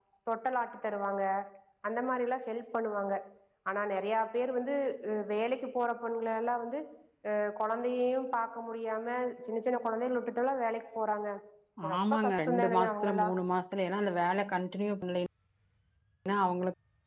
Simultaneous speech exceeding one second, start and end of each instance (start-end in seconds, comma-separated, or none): 12.0-13.3